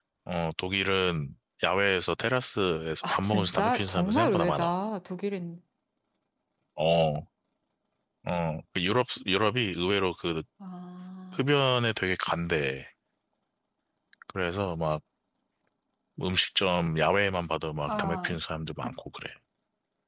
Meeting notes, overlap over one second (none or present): present